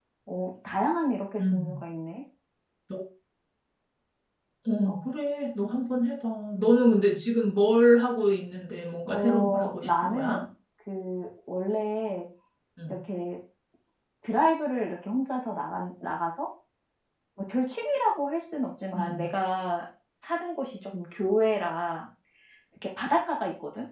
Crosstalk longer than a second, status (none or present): present